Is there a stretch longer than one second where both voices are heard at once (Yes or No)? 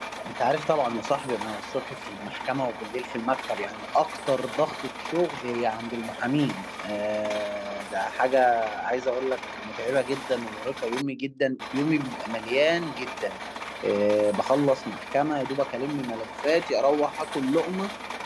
No